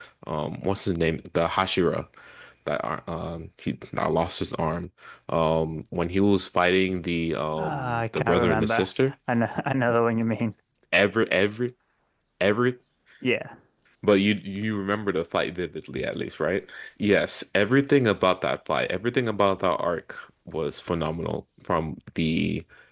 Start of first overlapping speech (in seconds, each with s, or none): 7.5 s